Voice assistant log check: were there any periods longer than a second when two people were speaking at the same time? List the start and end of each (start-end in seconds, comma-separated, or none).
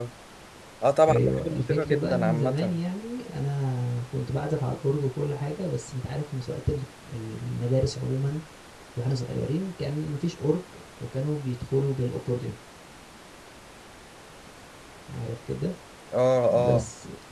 1.1-2.8